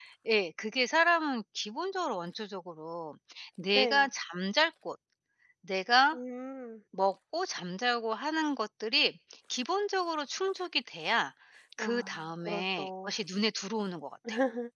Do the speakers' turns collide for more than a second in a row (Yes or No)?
Yes